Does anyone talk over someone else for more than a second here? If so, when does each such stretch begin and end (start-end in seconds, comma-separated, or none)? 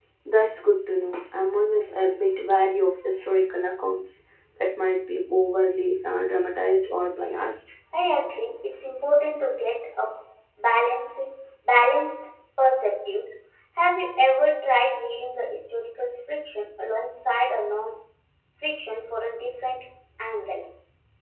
none